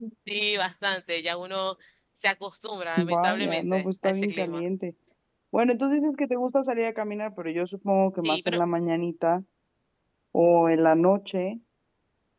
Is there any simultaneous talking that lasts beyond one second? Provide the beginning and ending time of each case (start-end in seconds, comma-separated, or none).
3.0-4.6